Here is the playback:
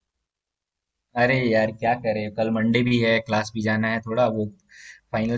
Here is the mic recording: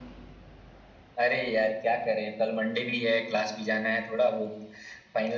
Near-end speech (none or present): none